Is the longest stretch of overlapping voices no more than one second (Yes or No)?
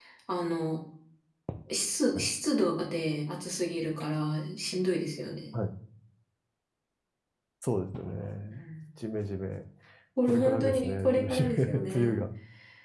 No